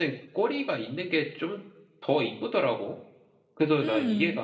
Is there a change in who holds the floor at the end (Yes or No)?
No